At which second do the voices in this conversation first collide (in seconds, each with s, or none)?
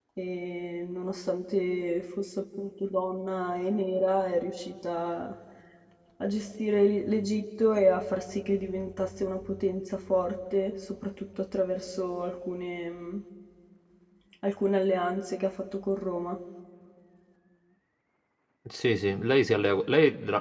none